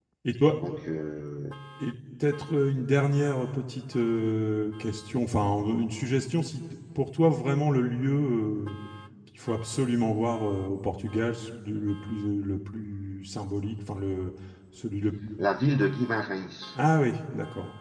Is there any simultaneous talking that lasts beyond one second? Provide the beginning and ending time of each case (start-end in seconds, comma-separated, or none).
none